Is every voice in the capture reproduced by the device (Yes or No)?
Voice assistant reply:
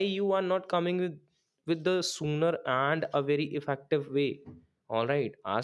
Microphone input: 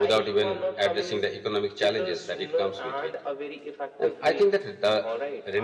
No